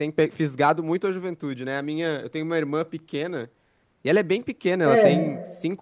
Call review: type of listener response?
listening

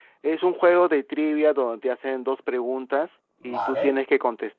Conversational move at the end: listening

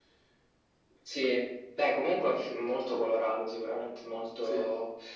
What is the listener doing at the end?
listening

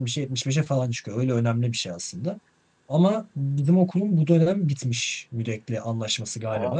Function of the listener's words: listening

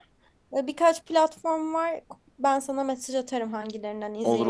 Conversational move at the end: taking over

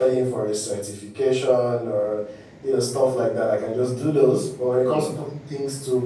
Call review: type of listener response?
listening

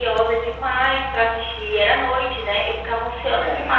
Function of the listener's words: listening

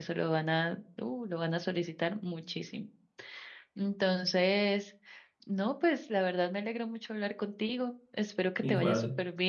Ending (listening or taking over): listening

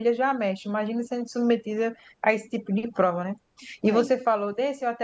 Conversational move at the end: listening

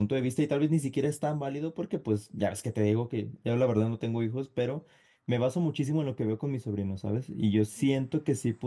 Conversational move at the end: listening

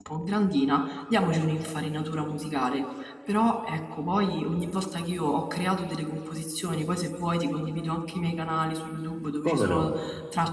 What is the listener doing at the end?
listening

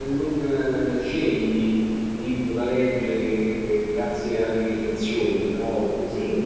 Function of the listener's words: listening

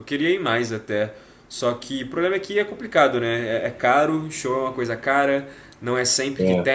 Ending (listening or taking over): listening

